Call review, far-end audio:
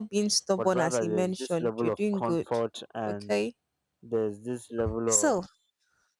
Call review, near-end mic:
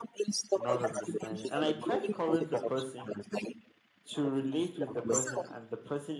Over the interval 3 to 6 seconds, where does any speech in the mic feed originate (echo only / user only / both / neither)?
both